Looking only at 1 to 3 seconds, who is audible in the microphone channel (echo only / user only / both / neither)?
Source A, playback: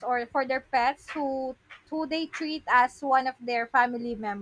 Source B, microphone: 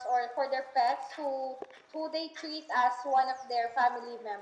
echo only